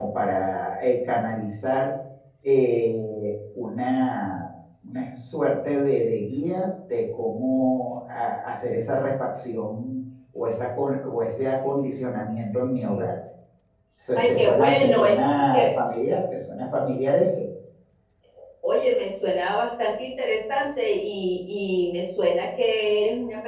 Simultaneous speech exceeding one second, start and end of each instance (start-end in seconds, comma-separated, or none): 14.2-15.7